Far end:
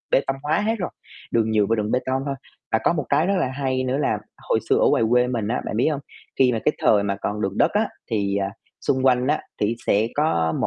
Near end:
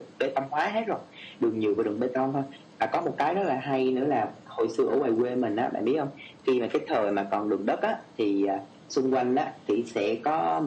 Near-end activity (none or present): none